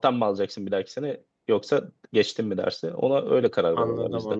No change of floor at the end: No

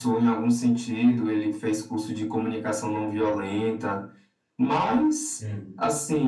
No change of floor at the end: Yes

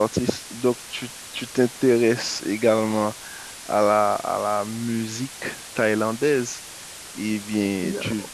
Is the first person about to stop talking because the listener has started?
Yes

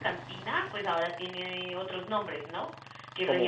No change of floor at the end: Yes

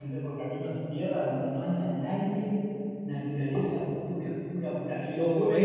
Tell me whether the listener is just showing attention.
No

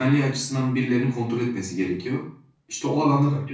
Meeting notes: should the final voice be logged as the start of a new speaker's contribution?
No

